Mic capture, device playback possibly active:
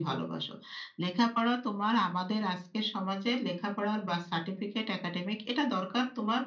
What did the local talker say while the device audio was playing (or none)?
none